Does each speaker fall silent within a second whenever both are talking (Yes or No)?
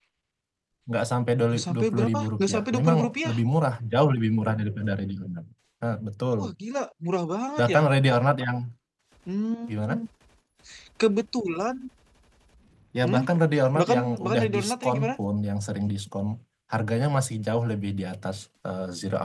No